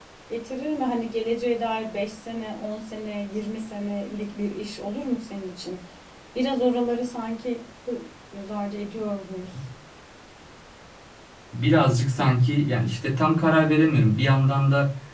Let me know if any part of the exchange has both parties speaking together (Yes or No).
No